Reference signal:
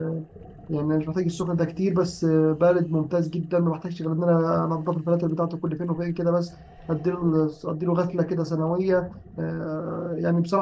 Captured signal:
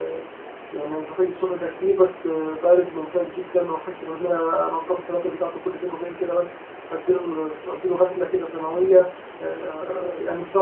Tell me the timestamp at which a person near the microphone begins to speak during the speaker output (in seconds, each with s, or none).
none